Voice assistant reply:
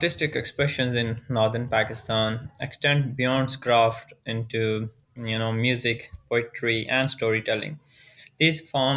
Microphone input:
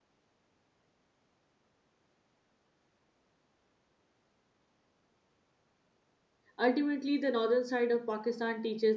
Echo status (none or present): none